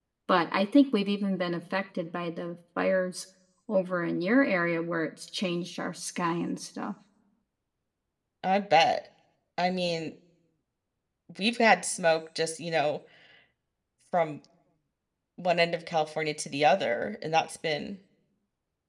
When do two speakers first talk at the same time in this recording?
none

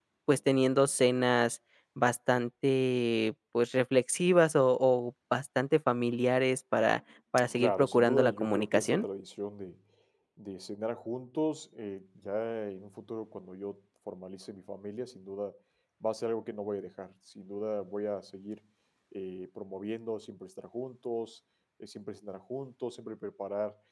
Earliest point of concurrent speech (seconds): 8 s

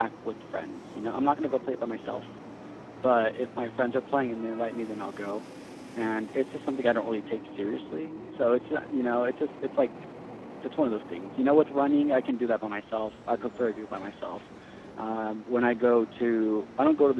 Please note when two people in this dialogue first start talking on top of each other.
none

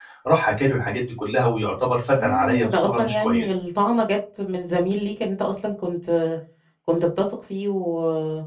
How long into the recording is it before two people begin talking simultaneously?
2 s

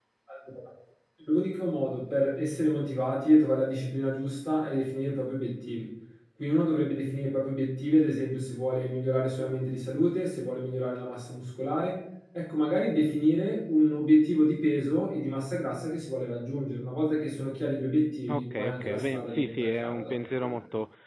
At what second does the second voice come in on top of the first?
18 s

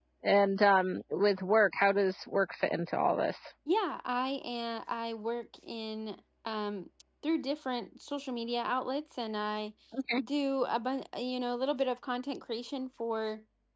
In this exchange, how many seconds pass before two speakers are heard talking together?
none

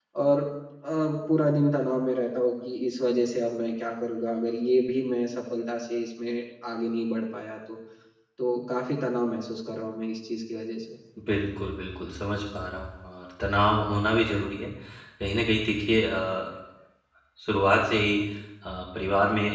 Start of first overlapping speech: none

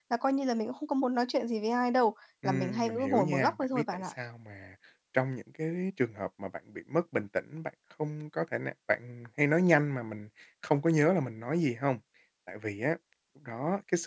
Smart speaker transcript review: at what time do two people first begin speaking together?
2 s

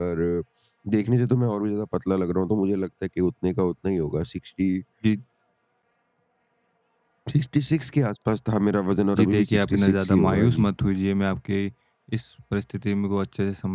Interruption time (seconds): 9 s

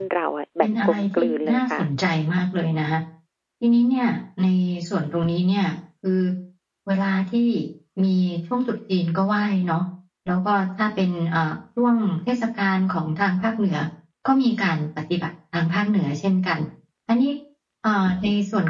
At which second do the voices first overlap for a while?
1 s

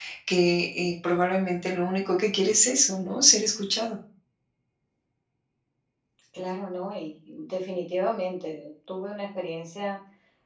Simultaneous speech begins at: none

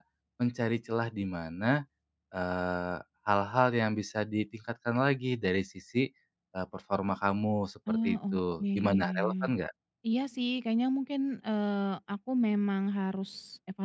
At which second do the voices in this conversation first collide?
8 s

